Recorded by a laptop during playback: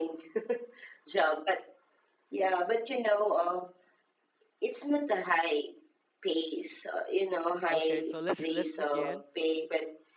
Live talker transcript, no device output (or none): Okay. So let's let's begin